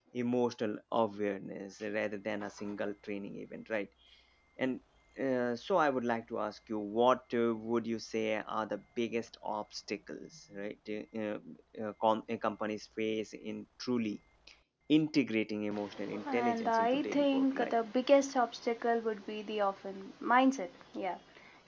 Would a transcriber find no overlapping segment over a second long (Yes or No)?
No